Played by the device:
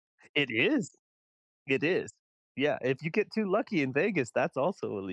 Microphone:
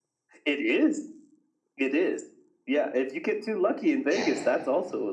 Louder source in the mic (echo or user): echo